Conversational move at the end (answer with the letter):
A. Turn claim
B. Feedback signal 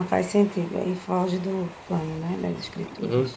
A